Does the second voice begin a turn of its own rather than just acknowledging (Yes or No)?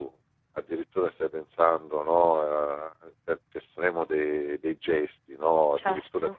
No